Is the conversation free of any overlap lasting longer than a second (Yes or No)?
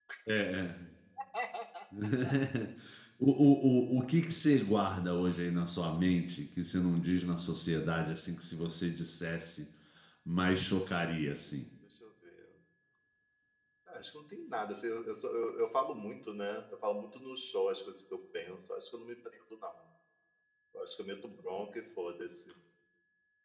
Yes